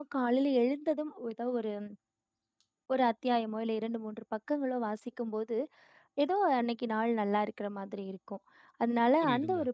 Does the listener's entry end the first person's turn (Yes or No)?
No